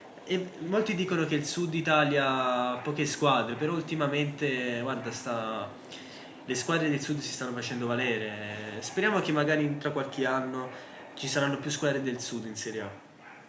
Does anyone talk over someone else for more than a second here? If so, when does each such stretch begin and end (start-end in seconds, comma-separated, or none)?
none